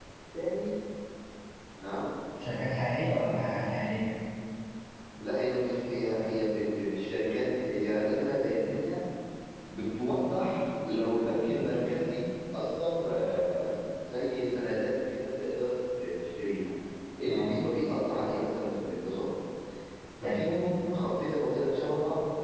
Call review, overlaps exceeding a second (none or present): none